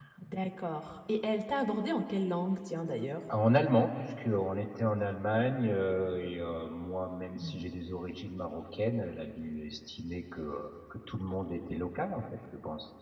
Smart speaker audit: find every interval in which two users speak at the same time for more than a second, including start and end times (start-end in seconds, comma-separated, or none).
none